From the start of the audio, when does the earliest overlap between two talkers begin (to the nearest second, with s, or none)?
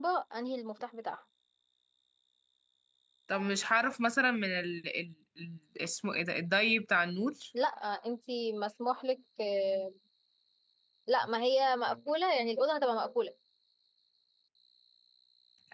none